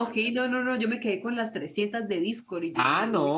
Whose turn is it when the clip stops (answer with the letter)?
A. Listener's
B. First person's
A